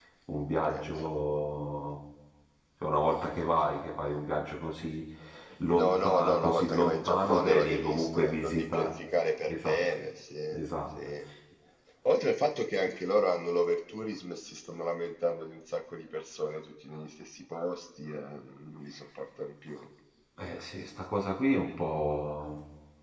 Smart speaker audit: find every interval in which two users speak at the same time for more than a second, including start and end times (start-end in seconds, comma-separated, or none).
5.7-8.9